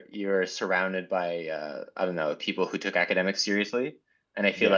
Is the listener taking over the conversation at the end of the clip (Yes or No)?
No